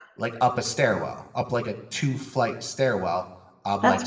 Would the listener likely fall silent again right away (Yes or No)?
Yes